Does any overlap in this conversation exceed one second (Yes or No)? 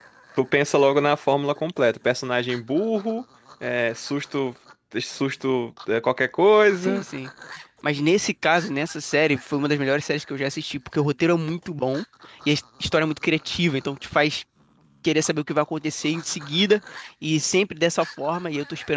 No